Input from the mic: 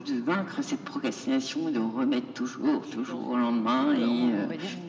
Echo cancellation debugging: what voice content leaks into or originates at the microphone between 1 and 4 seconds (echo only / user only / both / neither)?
both